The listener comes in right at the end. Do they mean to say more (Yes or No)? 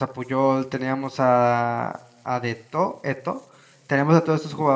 No